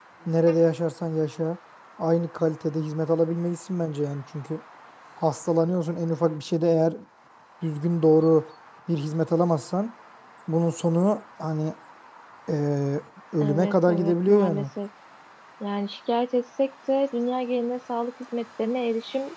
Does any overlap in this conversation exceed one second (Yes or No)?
Yes